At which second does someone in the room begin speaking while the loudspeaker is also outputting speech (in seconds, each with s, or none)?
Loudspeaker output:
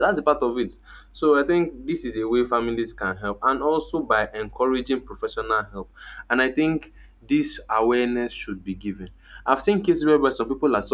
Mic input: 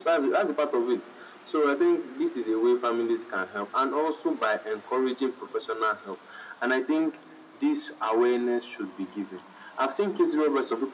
none